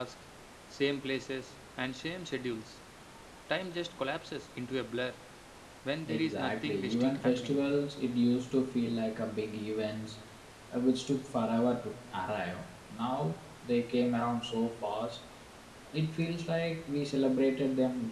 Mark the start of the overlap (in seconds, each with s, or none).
6.0 s